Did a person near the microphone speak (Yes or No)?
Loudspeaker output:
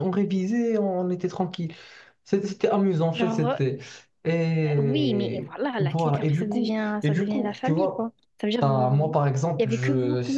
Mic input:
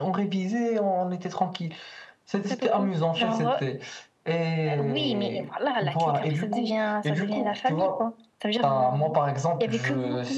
Yes